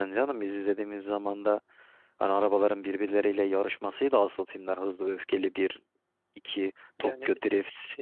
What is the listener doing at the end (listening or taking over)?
taking over